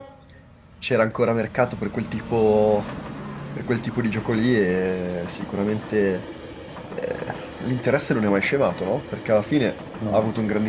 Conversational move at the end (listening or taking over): listening